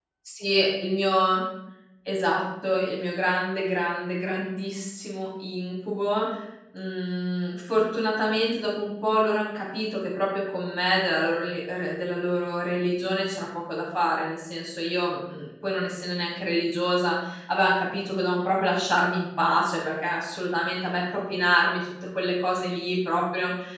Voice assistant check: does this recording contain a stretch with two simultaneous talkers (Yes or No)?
No